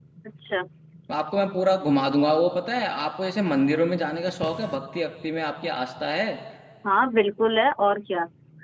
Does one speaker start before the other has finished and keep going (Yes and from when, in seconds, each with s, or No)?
No